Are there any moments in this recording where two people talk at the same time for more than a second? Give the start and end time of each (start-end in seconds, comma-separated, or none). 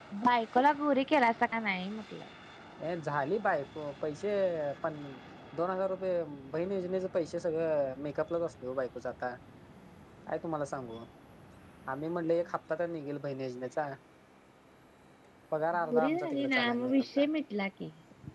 15.9-17.2